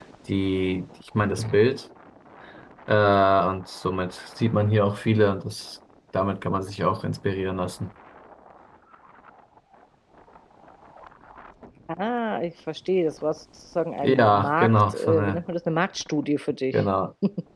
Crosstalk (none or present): present